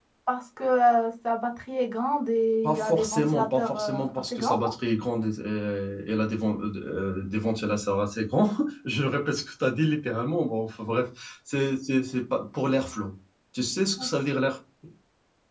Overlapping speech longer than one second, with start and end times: 2.6-4.7

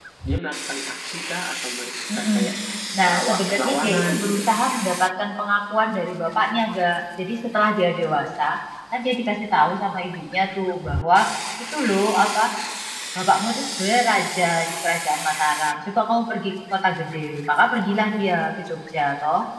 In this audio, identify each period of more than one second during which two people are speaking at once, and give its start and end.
3.1-4.4

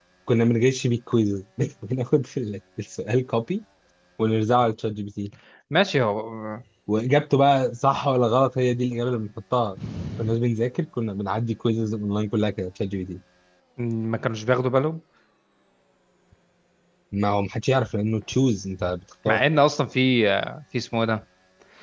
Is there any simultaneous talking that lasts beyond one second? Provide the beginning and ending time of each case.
none

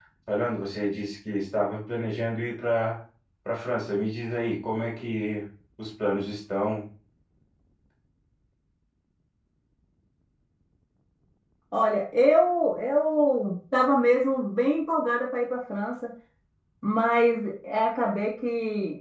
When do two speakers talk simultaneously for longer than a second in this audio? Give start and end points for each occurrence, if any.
none

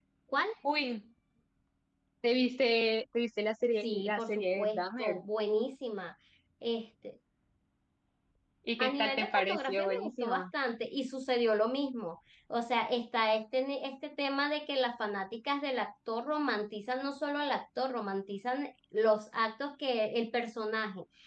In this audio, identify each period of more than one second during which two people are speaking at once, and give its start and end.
3.8-5.2, 8.8-10.4

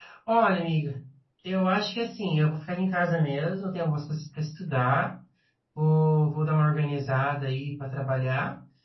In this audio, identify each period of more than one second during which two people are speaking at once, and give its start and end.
none

